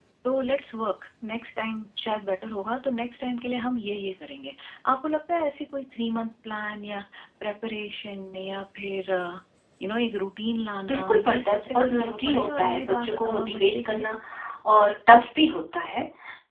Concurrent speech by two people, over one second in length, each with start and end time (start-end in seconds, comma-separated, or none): 10.9-14.1